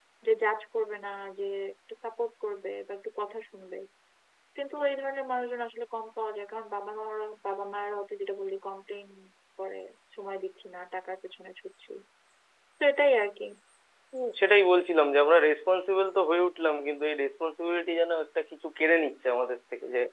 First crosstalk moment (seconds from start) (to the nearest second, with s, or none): none